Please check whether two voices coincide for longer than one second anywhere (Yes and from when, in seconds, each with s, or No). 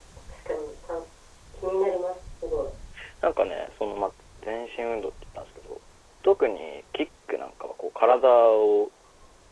No